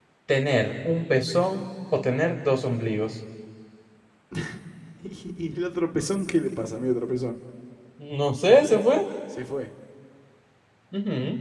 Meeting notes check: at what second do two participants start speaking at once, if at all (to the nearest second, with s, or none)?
none